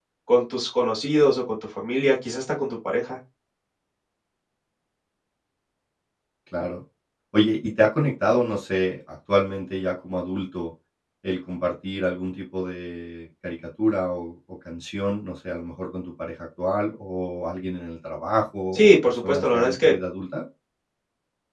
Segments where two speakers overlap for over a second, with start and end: 18.7-19.9

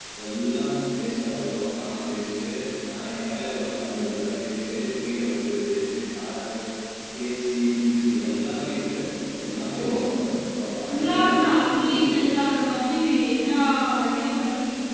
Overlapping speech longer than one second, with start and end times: 10.9-12.4

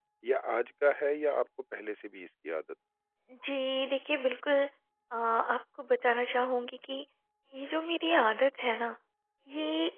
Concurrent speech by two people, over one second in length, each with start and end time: none

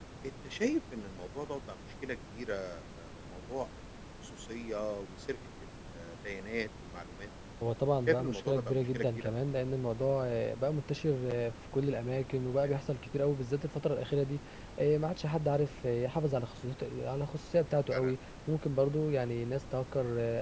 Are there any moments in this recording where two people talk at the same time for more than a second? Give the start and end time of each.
8.1-9.3

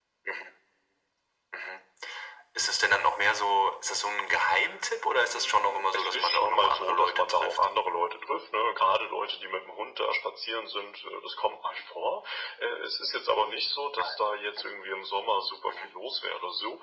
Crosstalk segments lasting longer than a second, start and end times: 5.3-7.6

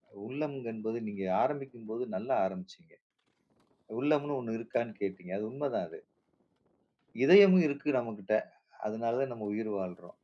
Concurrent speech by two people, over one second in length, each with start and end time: none

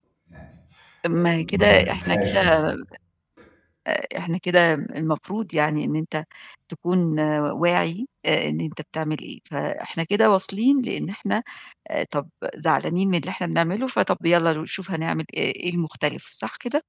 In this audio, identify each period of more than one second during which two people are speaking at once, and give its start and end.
1.2-2.4

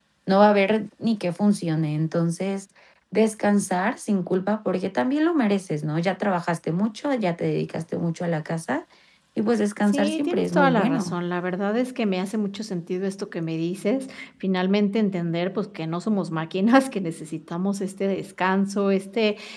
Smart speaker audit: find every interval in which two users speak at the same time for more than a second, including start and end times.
9.9-11.2

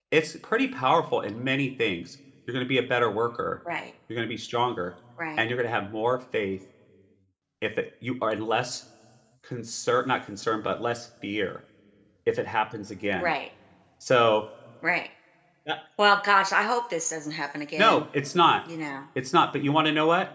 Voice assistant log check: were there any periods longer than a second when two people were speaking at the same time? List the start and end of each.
none

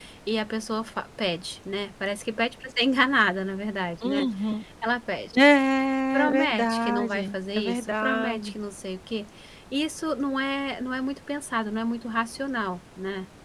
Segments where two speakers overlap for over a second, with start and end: 6.1-8.5

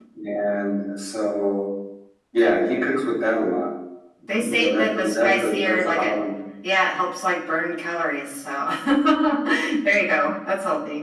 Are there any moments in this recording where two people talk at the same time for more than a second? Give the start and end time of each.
4.3-6.1

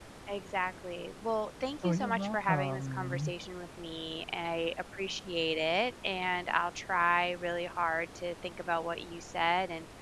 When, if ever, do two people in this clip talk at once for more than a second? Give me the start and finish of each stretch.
1.8-3.3

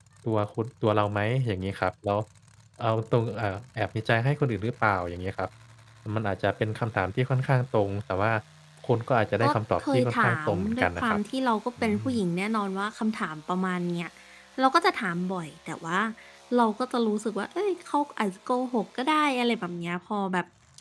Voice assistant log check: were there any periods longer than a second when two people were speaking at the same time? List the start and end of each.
9.4-11.2

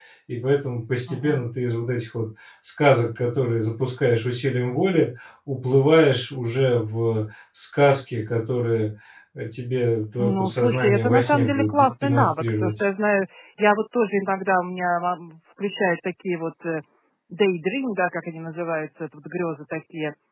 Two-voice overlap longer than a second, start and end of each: 10.2-12.7

